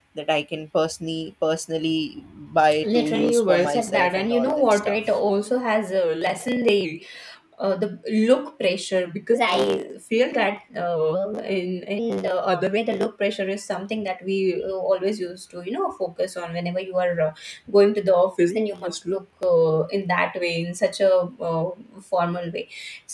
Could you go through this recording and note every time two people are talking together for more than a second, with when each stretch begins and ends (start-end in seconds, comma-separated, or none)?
2.8-5.0